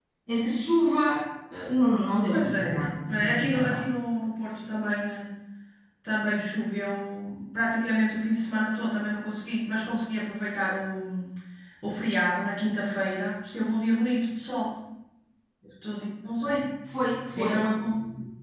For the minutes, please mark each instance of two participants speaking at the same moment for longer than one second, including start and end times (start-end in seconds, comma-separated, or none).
2.2-3.8